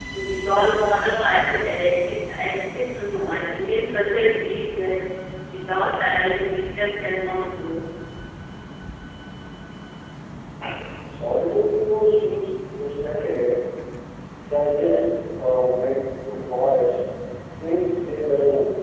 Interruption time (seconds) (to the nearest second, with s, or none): none